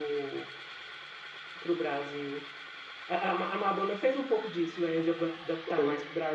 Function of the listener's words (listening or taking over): listening